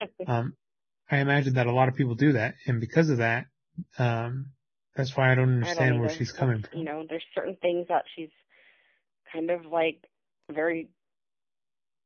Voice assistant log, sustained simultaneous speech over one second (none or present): present